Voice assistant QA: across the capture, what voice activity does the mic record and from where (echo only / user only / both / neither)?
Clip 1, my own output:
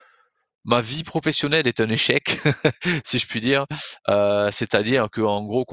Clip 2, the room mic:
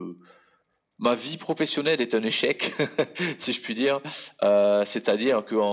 echo only